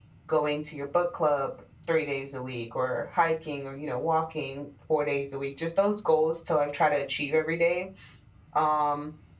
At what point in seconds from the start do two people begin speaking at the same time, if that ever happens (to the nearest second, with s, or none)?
none